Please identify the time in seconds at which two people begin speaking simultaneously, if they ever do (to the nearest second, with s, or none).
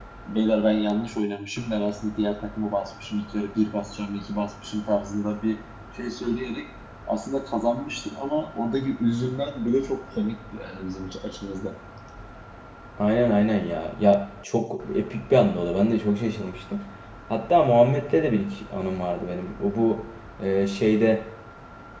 none